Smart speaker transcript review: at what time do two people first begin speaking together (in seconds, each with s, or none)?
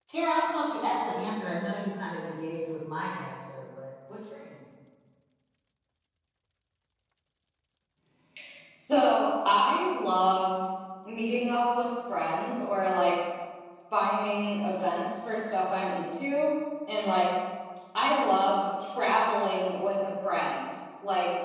none